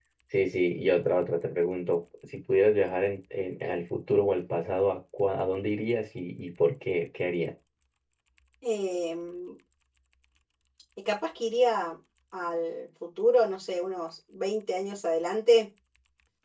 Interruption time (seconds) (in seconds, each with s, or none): none